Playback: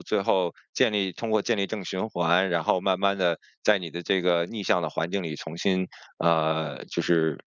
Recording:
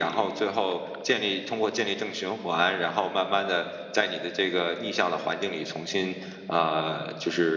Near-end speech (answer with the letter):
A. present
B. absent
B